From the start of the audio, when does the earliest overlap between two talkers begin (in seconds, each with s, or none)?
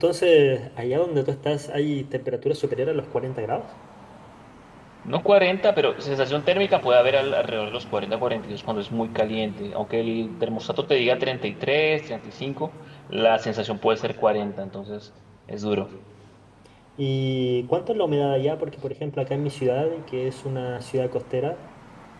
none